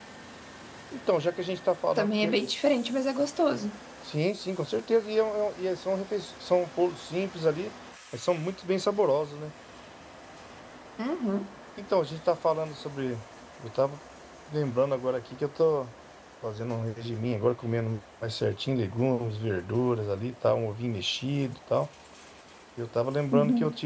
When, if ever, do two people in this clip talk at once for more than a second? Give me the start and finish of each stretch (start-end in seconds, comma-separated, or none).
none